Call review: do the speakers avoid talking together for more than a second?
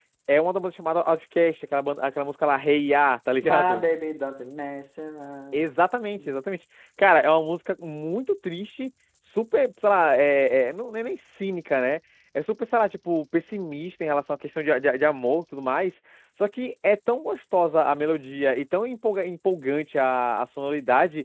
Yes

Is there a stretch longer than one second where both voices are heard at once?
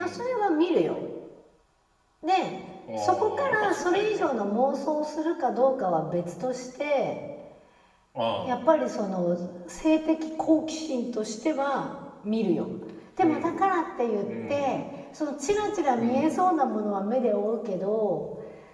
Yes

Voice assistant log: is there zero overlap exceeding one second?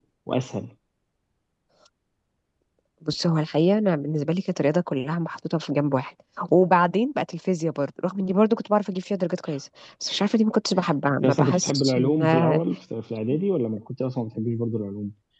No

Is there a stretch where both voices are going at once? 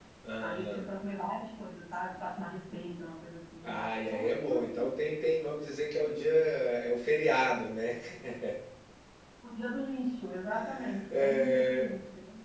Yes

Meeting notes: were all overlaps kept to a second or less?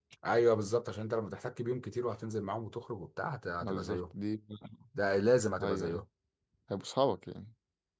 Yes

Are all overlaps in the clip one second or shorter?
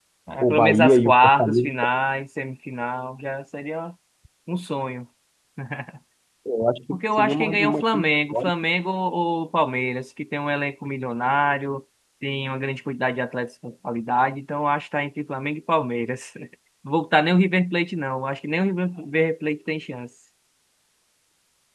No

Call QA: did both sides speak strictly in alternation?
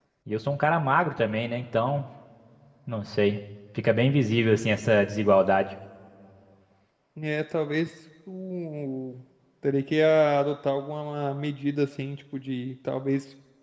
Yes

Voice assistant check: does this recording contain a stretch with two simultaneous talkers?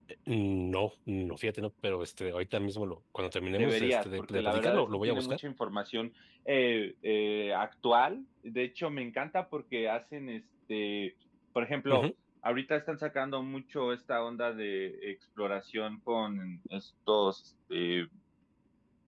Yes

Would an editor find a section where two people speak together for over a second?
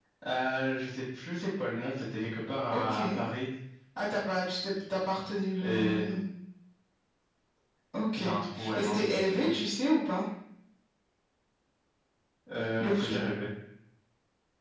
Yes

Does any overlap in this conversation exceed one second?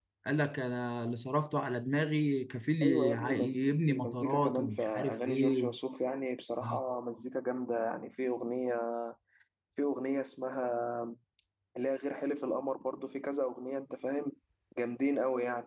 Yes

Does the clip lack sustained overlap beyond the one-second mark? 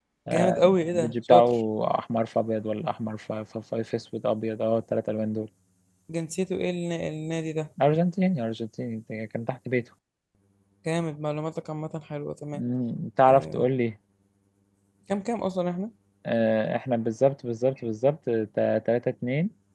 No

